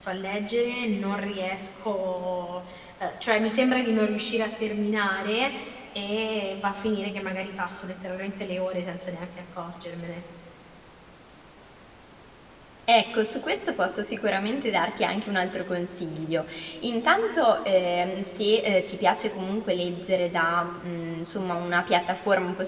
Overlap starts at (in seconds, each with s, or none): none